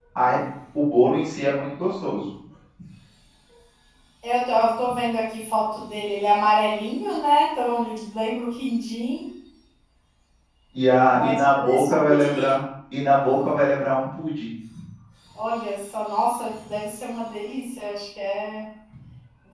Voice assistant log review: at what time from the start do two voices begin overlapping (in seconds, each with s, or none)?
11.1 s